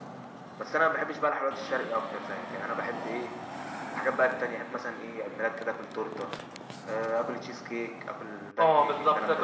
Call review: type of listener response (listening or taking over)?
taking over